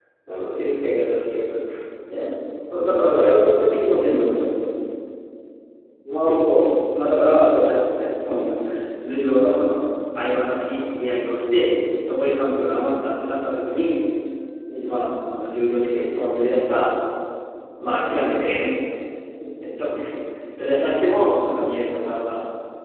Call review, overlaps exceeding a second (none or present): none